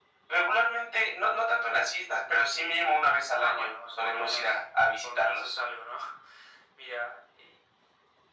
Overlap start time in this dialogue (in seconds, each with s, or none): 3.4 s